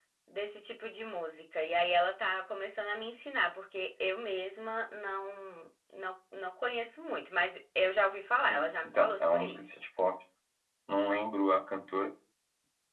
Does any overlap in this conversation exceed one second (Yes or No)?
Yes